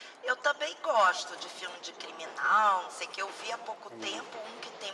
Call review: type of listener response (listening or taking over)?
listening